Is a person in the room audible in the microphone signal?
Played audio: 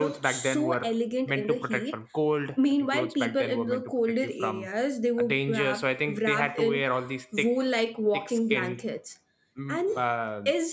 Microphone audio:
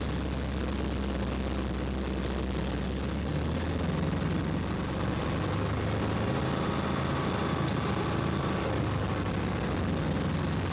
No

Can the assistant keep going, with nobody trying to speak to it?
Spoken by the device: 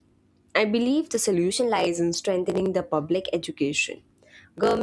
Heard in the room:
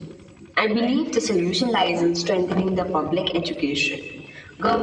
Yes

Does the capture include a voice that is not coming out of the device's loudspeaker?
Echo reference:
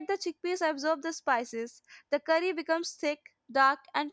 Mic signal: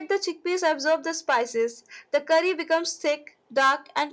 No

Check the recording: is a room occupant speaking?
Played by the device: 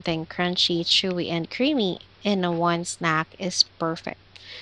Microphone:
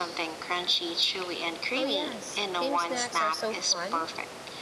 Yes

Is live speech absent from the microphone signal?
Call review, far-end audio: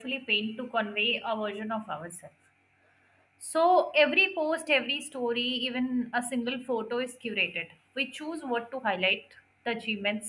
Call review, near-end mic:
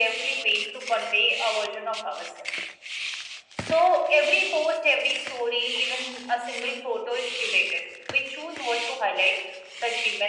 Yes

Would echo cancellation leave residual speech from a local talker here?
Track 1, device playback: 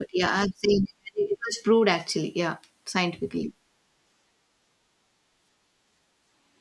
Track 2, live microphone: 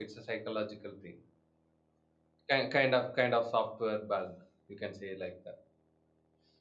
Yes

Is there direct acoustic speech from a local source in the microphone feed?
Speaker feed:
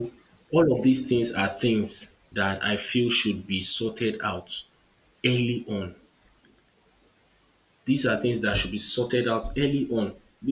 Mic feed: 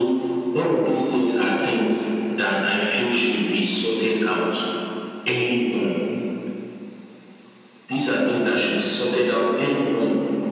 No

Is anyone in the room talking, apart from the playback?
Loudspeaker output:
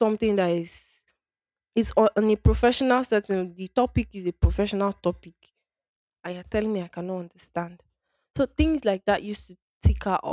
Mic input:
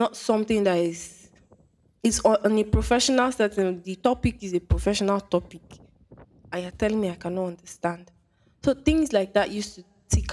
No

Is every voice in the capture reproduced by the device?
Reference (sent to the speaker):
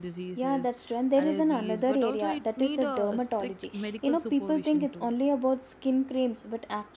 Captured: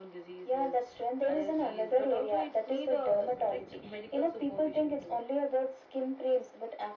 Yes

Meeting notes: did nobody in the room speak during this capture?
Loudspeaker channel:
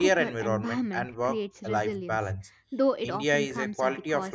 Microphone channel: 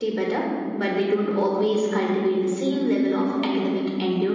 No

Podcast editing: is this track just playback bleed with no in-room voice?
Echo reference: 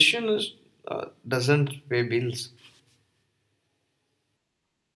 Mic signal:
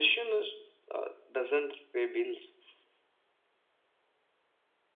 Yes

